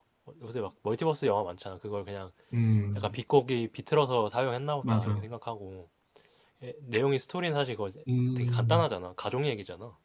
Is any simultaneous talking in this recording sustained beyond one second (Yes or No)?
No